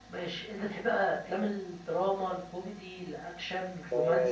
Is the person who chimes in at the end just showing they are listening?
No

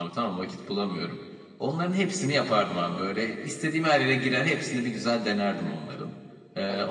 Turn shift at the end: No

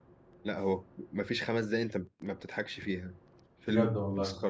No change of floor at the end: Yes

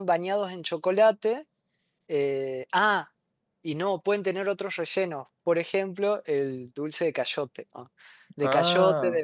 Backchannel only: Yes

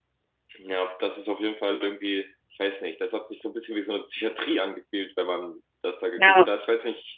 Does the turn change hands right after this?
No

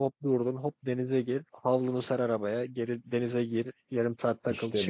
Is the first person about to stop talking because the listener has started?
No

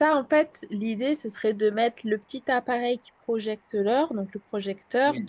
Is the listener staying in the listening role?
Yes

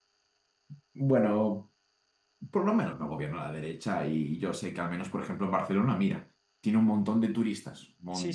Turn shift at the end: Yes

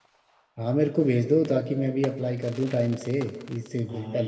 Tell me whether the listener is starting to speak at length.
Yes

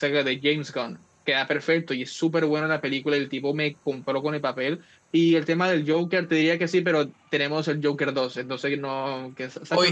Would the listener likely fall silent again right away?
No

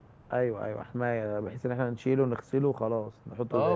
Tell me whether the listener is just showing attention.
No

